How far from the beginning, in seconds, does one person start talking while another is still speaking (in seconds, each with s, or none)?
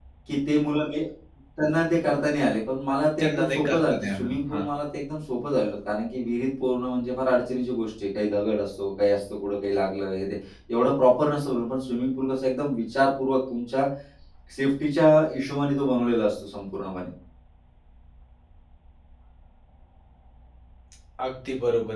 3.2 s